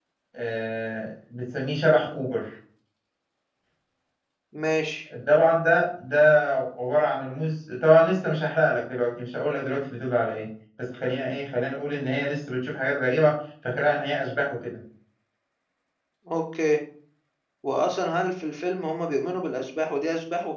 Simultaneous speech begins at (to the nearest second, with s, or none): none